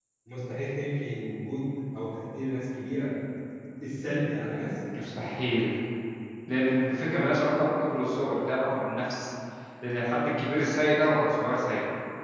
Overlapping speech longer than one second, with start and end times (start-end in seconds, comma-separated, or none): none